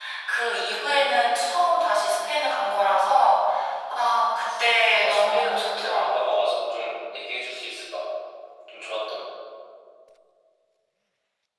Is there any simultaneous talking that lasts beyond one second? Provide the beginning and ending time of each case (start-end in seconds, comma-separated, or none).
4.3-6.3